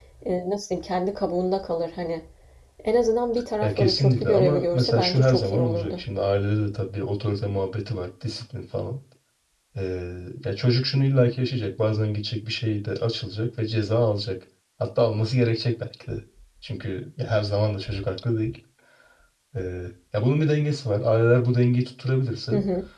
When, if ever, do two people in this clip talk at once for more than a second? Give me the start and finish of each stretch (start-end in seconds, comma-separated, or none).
3.6-6.0